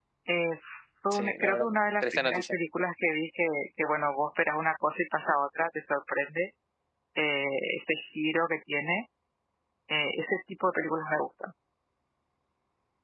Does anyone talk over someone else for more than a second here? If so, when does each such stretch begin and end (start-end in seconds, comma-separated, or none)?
1.1-2.5